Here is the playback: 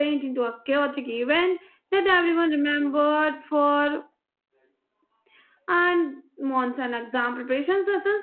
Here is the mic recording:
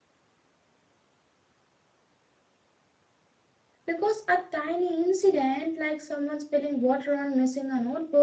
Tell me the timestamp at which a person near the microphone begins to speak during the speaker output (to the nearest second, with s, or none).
4 s